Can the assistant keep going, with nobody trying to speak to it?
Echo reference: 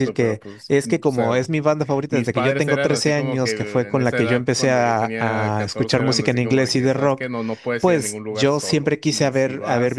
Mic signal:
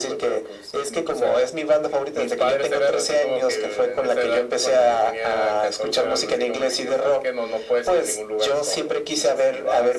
Yes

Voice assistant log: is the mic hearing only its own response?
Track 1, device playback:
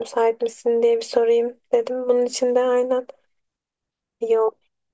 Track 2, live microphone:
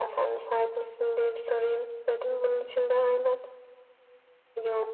Yes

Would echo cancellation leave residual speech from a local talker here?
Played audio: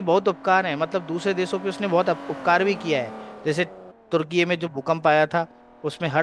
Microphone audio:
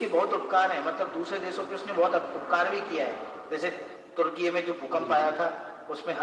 Yes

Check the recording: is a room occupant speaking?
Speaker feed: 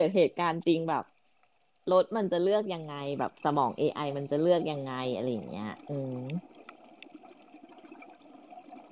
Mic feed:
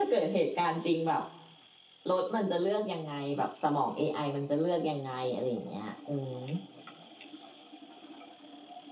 No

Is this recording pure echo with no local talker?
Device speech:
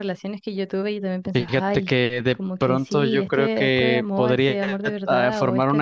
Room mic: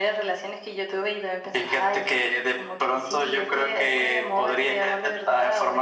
Yes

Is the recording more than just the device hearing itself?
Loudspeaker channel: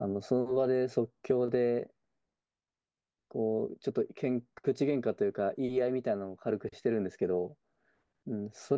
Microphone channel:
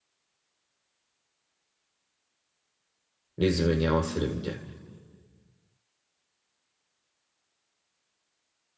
Yes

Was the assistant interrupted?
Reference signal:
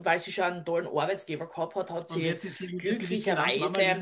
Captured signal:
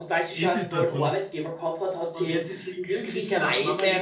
Yes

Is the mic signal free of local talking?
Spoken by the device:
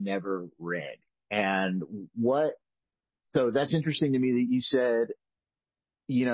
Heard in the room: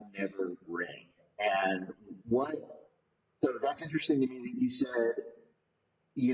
Yes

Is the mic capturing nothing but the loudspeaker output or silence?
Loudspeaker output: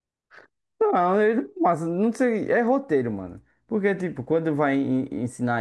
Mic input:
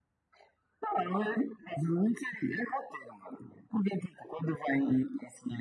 Yes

